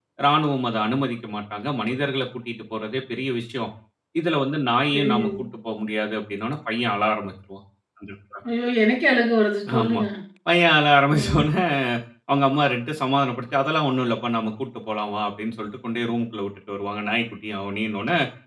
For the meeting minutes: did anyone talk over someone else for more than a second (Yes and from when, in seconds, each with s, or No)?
No